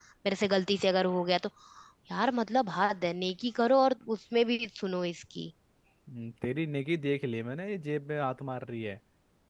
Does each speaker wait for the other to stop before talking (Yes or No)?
Yes